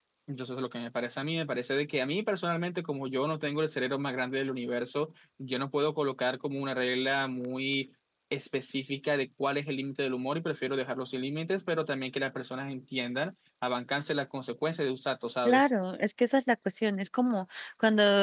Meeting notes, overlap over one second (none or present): none